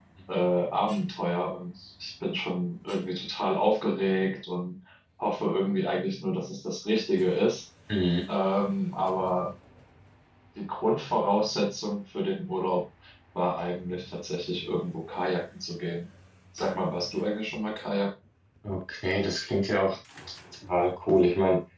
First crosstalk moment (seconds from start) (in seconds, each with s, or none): none